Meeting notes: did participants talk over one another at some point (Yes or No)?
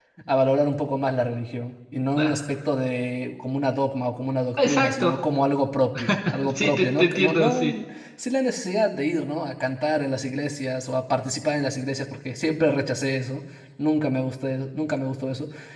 Yes